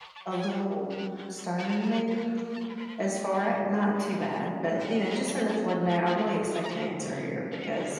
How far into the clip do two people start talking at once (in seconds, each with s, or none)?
none